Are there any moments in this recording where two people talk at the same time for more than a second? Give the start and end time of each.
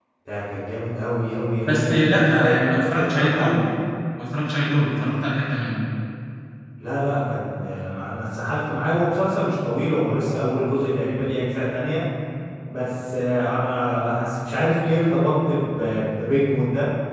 1.6-3.6

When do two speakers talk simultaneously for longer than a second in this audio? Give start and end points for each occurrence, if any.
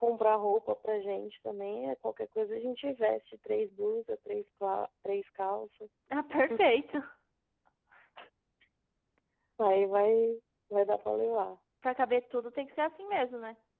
none

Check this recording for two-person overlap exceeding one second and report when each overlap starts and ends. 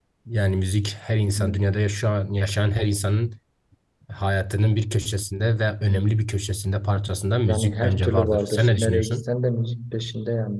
7.5-9.3

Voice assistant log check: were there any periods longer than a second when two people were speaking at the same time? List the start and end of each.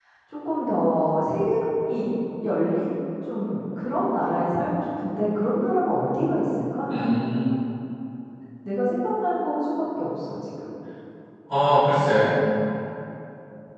none

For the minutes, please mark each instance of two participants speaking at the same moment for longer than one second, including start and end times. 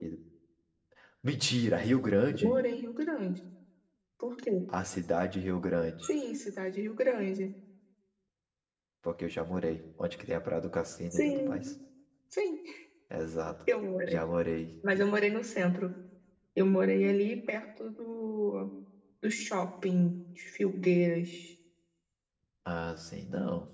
none

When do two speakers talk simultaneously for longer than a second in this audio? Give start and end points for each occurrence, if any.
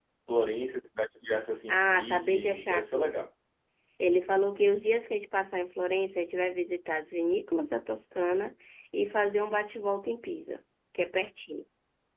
1.7-3.3

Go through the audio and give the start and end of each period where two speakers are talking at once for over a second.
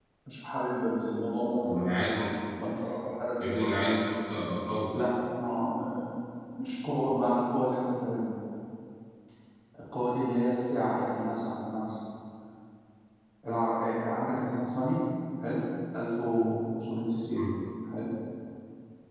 none

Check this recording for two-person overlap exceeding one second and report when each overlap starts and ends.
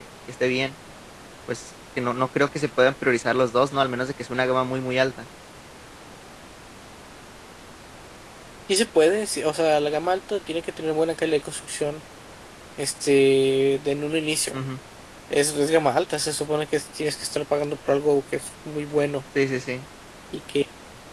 none

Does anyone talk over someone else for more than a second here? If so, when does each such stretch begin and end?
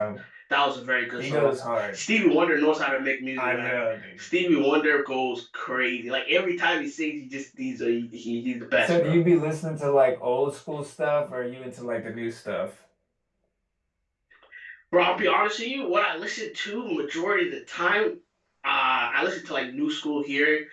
none

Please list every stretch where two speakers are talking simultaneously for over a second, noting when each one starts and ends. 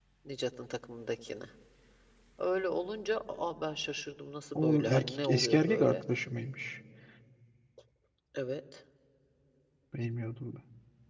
4.5-6.0

